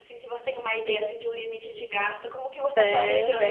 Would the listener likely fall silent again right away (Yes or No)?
No